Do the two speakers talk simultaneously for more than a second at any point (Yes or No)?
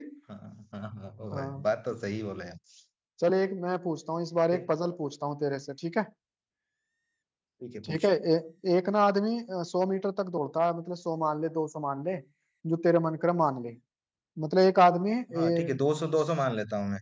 No